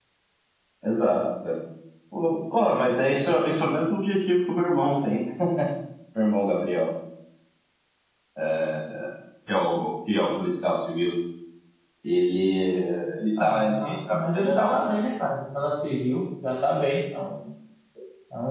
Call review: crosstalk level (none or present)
present